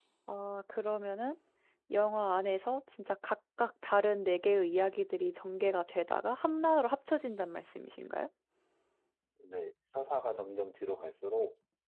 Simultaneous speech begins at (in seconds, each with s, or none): none